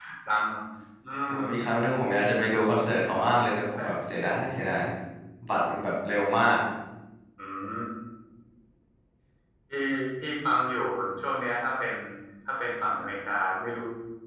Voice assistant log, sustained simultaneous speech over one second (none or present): none